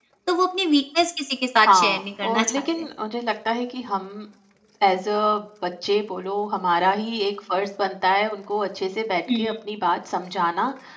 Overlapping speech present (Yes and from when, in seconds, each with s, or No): Yes, from 1.7 s